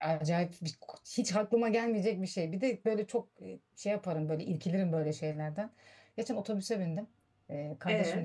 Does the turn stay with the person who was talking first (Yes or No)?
Yes